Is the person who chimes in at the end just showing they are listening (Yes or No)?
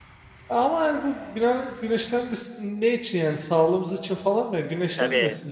No